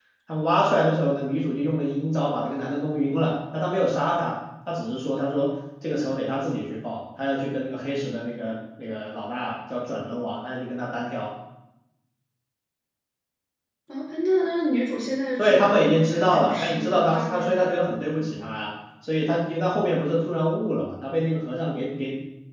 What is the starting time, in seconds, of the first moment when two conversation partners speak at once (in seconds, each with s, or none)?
15.4 s